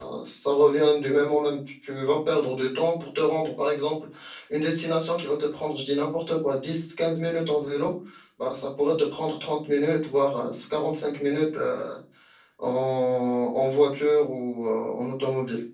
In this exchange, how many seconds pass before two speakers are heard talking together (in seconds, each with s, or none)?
none